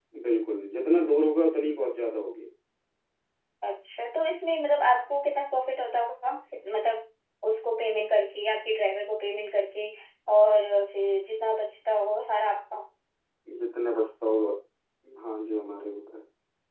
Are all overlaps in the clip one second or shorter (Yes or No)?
Yes